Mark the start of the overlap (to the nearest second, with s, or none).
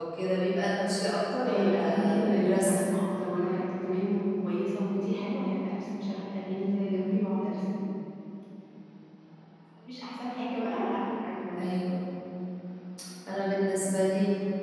1 s